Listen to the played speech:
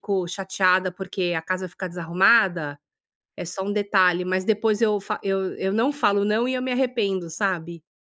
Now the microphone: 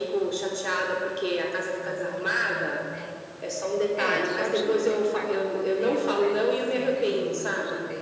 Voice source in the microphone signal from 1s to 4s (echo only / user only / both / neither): both